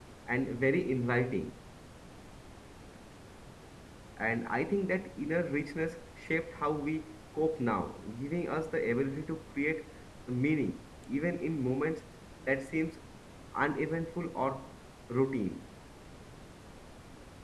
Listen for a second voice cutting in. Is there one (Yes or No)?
No